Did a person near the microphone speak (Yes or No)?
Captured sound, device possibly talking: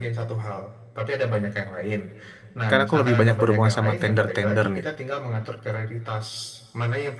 Yes